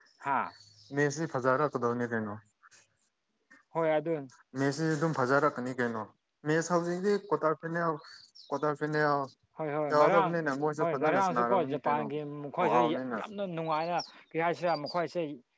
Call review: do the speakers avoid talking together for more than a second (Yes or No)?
No